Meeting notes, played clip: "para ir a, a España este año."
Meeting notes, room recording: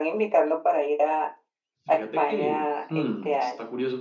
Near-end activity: present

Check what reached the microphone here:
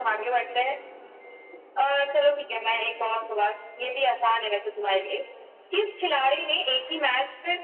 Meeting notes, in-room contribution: none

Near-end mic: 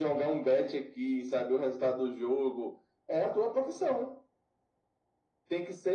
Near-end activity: none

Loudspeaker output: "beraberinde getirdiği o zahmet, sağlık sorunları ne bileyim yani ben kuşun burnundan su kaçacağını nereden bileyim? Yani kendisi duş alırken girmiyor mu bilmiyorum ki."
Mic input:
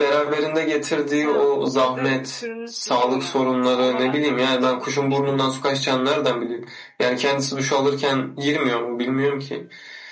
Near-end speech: present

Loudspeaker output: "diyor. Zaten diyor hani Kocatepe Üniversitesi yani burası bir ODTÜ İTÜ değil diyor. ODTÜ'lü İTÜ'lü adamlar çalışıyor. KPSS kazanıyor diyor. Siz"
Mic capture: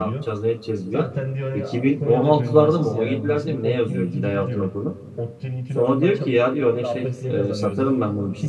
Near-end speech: present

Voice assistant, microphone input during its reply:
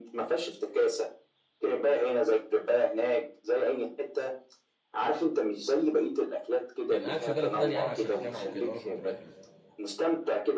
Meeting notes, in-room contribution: present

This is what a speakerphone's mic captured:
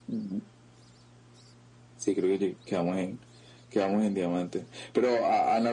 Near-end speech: none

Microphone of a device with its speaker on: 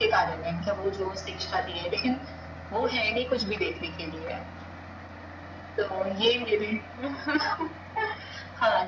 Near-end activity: none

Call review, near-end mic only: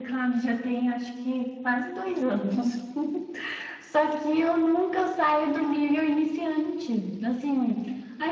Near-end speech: none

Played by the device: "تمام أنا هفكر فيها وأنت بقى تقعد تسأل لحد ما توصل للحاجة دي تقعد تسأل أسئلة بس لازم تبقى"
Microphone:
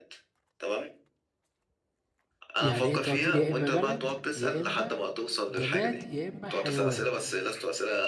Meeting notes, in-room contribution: present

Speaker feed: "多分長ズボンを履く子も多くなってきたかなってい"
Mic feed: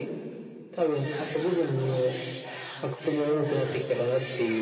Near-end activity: present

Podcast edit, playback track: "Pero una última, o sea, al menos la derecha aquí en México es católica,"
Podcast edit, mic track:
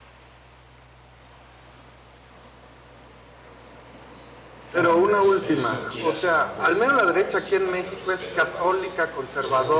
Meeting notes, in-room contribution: present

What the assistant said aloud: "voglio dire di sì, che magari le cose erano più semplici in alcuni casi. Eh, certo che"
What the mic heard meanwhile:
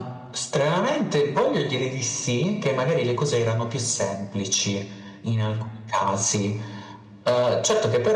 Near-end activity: none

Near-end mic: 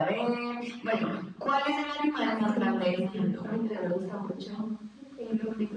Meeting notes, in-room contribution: none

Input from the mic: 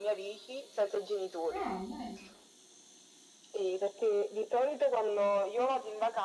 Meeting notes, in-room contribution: present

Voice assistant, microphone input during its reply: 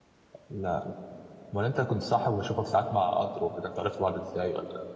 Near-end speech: present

